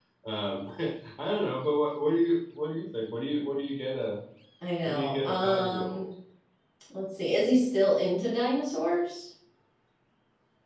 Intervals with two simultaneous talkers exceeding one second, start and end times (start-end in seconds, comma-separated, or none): 4.8-6.0